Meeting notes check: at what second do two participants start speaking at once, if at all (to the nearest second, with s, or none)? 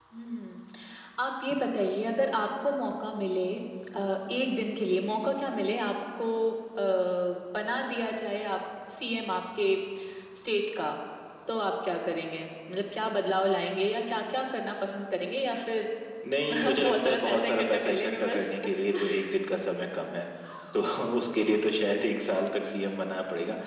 17 s